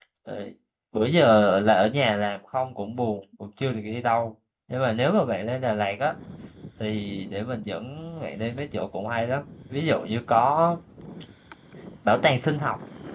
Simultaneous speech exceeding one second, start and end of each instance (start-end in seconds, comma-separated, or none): none